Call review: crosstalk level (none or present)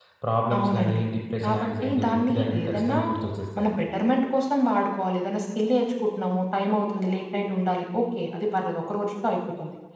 present